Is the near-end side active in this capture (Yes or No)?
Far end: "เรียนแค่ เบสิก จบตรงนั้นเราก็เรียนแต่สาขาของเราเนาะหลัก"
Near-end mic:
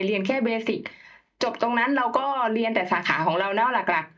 No